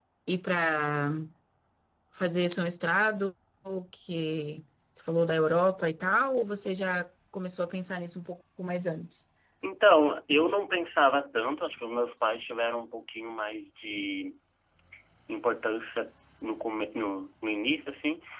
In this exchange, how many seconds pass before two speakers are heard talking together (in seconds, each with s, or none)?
none